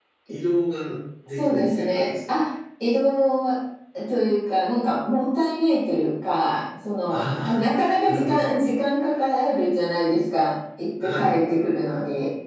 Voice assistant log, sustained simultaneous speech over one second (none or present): present